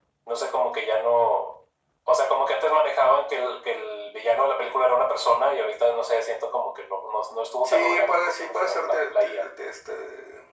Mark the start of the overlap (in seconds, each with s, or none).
7.6 s